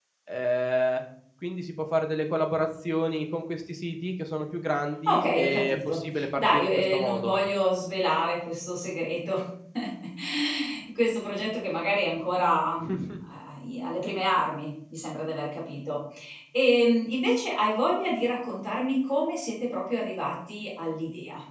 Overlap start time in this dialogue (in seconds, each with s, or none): 5.1 s